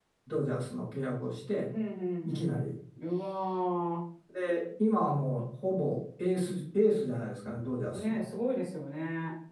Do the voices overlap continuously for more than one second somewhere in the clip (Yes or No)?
No